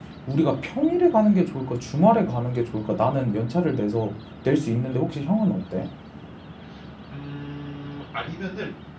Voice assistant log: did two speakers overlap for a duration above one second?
No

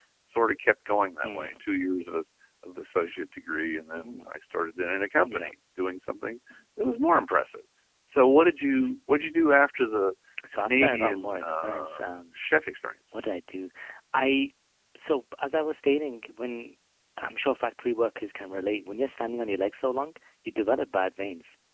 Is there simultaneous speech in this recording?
Yes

